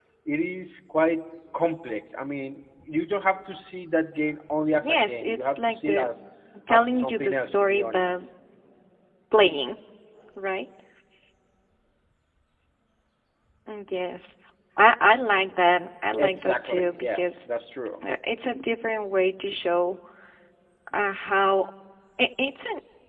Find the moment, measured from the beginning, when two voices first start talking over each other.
4.8 s

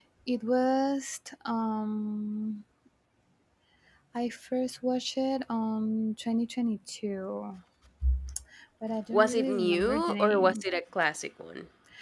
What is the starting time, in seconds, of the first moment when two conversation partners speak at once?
9.1 s

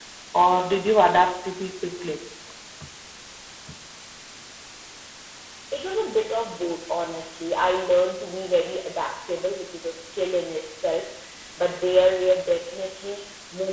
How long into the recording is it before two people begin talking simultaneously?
none

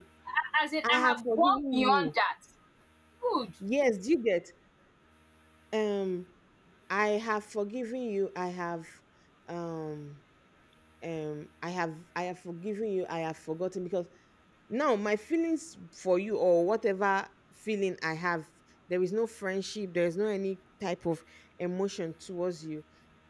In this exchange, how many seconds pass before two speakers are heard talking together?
0.9 s

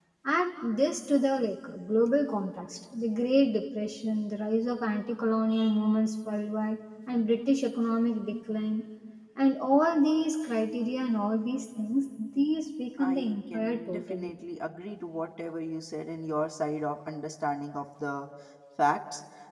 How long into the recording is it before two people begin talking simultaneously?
13.0 s

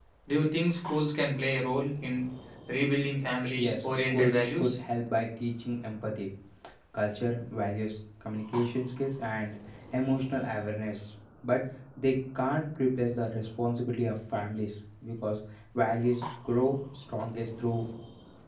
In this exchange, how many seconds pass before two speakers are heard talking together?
3.6 s

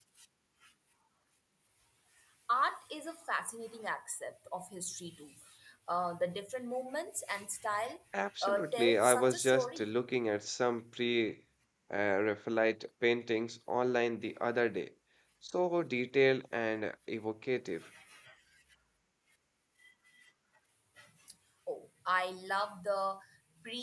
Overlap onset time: 8.4 s

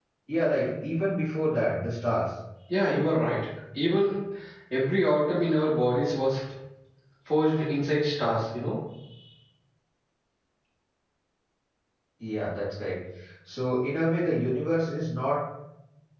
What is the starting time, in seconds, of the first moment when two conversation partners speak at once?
none

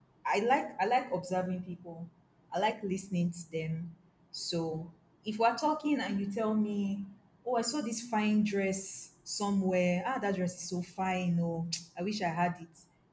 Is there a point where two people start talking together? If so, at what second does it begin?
none

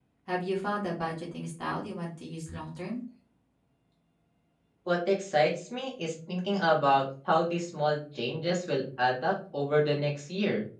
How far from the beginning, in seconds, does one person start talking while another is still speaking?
none

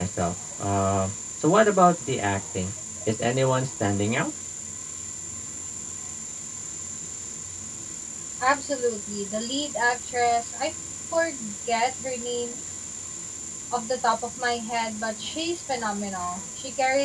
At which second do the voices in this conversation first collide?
none

